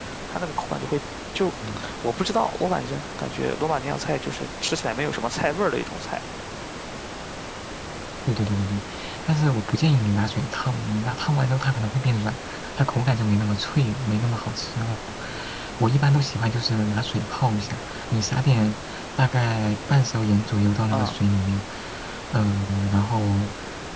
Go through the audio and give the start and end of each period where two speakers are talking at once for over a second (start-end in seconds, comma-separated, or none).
none